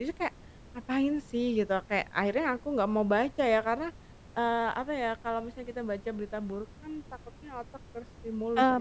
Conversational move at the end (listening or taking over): taking over